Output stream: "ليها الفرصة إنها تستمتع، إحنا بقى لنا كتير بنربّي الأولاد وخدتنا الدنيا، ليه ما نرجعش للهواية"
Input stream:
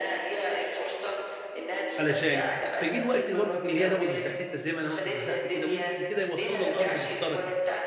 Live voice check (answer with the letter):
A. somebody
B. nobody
A